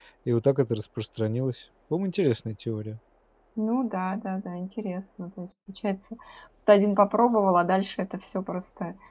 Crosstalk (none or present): none